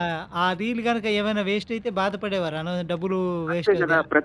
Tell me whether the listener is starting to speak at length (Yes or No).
Yes